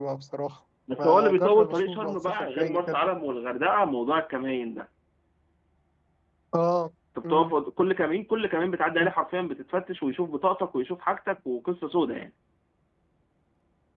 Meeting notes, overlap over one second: present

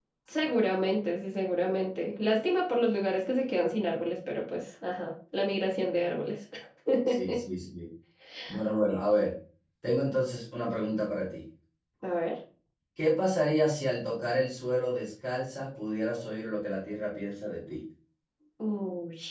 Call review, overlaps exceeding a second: none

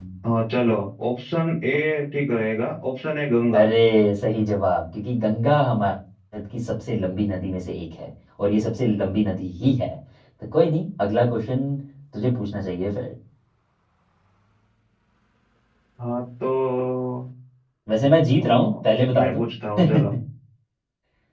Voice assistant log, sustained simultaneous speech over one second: none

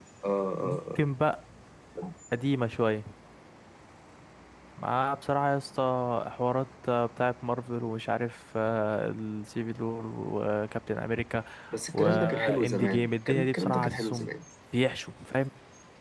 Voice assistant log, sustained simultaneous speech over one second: present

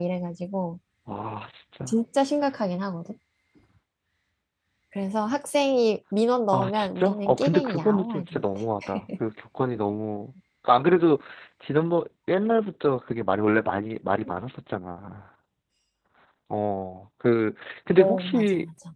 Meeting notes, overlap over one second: present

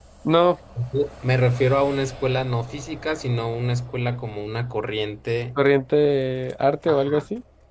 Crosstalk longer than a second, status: none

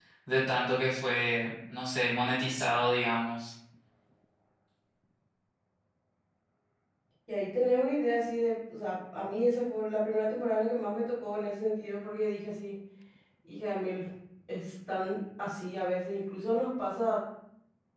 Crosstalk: none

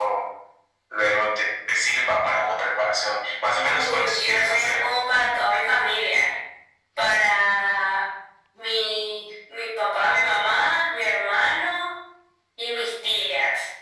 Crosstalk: present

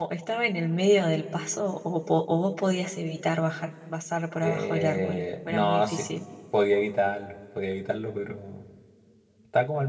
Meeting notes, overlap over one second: present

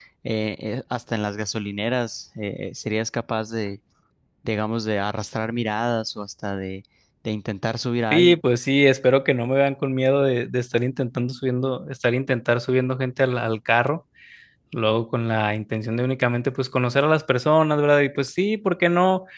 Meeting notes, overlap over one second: none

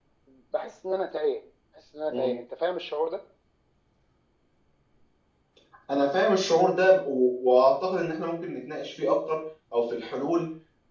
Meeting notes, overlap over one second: none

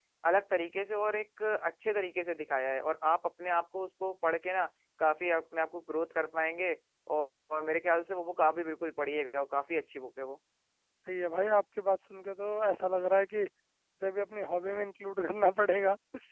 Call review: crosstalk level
none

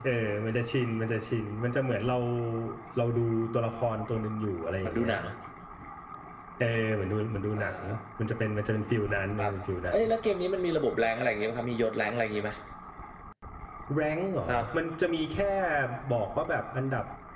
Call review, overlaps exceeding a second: none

